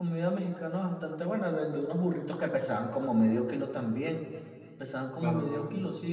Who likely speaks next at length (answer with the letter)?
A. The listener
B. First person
A